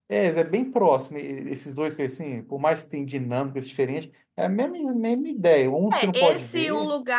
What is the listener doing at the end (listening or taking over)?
taking over